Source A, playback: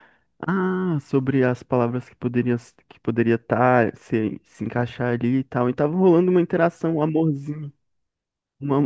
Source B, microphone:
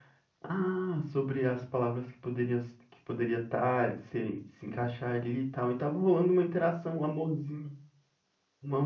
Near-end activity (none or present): none